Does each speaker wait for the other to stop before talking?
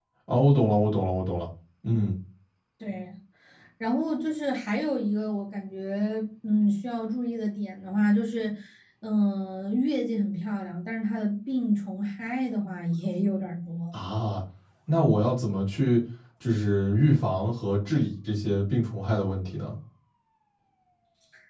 Yes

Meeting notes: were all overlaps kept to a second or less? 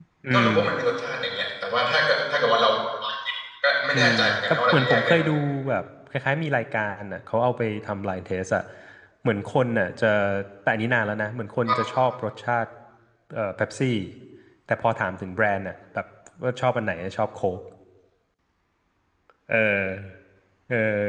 No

